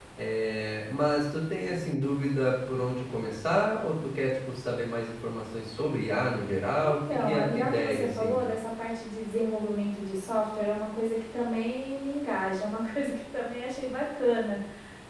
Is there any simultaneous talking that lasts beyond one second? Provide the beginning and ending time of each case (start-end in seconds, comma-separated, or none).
6.6-8.5